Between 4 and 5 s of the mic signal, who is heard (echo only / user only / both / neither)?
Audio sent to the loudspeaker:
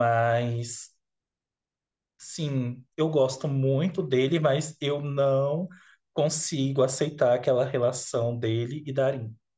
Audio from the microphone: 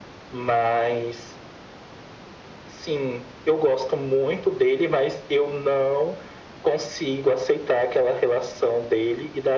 echo only